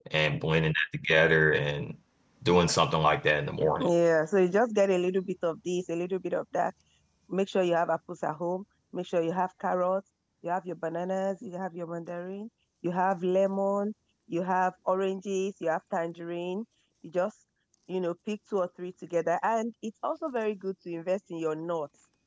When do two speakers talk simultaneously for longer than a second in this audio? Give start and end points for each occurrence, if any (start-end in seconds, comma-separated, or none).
none